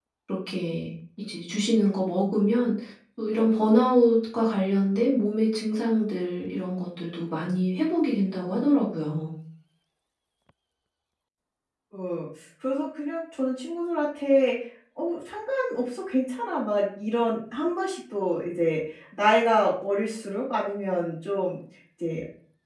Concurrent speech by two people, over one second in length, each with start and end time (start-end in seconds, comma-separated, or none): none